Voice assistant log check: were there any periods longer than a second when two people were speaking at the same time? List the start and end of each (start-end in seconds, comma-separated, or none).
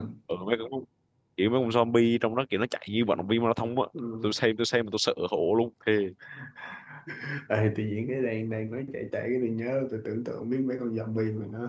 none